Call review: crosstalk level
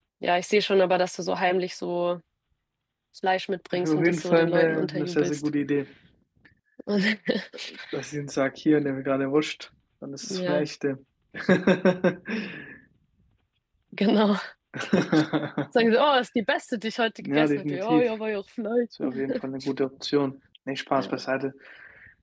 present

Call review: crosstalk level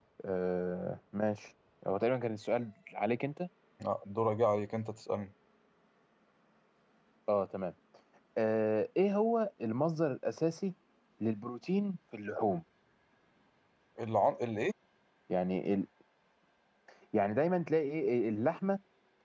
none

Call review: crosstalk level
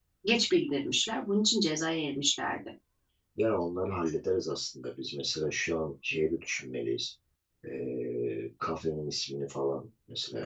none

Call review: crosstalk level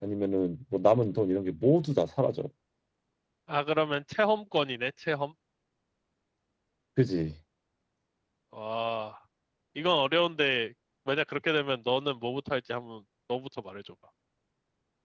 none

